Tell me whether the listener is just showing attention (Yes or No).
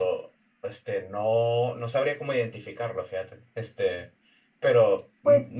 Yes